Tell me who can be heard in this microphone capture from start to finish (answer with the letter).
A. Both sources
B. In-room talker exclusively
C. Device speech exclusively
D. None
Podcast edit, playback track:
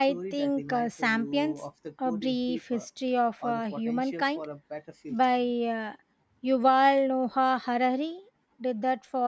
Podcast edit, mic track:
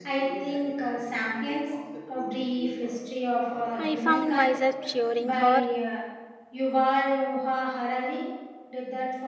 A